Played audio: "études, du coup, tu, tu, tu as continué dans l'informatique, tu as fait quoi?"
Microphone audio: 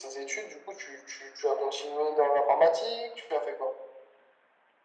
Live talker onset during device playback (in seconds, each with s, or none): none